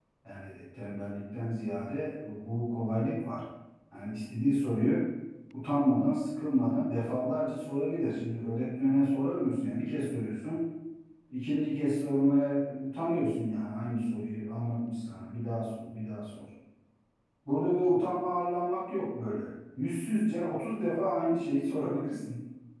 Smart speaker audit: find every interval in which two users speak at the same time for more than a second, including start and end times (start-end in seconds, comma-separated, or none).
none